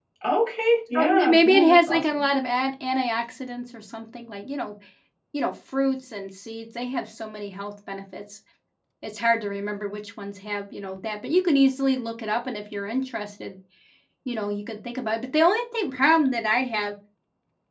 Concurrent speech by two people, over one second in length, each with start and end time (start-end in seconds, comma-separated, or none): 0.9-2.3